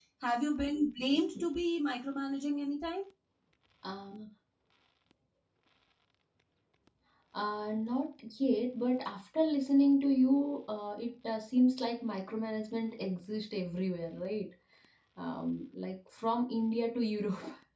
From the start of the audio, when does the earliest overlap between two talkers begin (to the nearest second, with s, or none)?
none